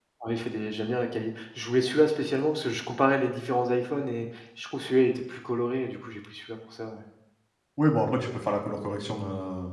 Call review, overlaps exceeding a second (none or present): none